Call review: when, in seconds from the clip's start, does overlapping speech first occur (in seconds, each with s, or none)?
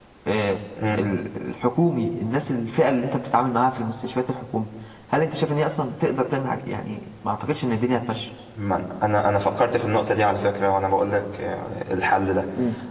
none